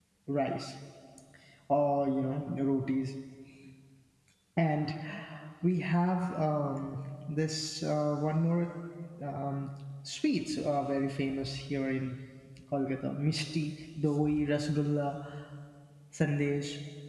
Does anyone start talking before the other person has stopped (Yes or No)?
No